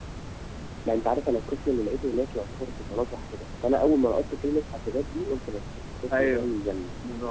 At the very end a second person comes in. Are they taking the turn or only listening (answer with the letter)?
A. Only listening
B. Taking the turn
B